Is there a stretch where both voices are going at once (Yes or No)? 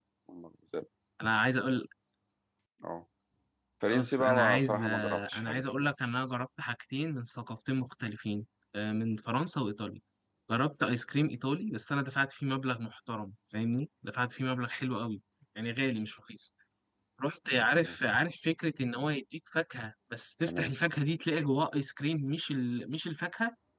Yes